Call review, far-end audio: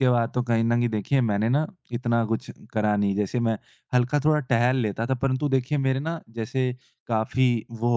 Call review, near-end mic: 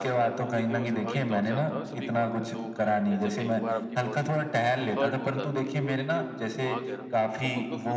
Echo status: present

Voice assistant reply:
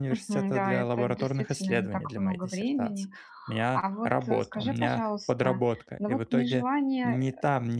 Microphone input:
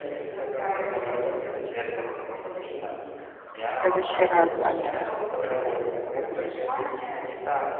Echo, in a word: present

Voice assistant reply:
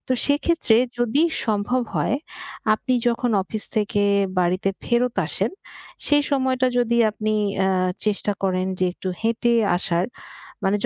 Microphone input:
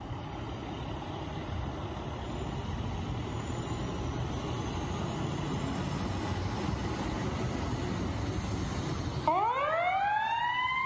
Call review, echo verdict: none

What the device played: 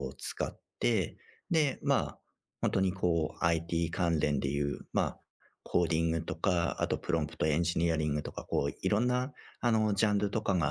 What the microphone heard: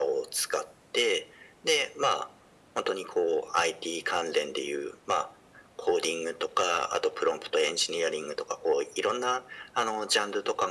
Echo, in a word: present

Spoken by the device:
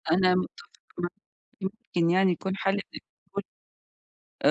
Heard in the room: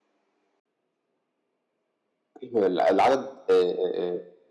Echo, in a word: none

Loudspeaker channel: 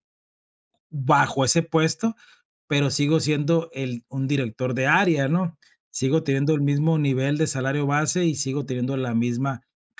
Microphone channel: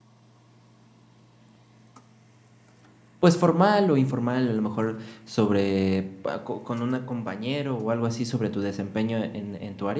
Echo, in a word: none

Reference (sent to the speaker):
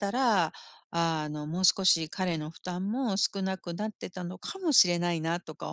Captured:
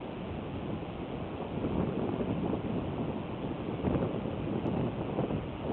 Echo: none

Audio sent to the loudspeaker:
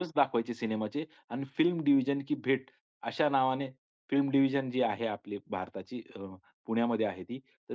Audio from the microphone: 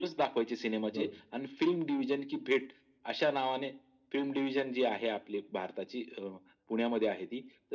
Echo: present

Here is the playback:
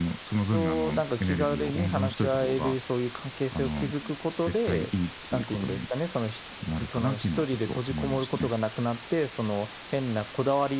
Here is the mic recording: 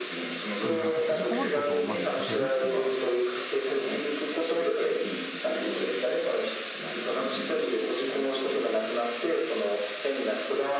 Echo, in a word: present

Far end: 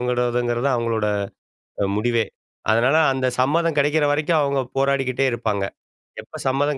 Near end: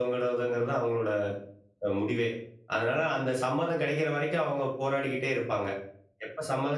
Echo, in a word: present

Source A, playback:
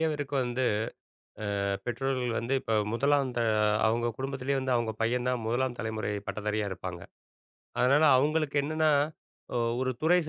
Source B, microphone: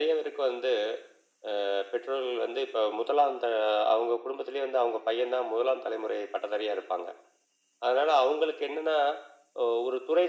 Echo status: present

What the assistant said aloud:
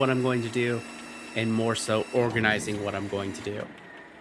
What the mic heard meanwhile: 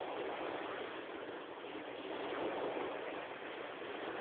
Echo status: none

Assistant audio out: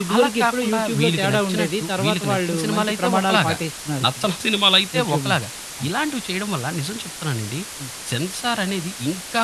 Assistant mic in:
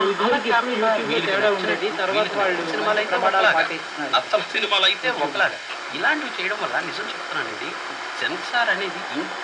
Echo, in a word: present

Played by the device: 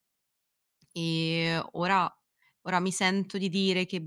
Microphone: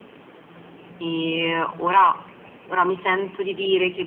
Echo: present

